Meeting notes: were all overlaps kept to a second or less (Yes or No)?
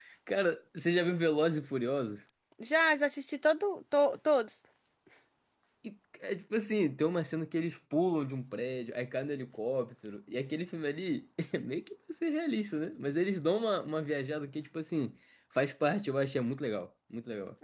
Yes